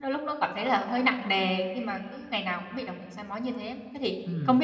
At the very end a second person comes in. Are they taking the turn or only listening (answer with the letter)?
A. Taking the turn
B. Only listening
B